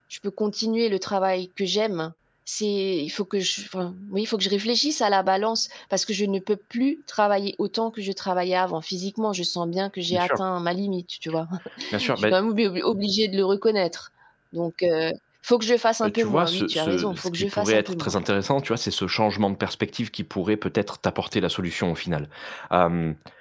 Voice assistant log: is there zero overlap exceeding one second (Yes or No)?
No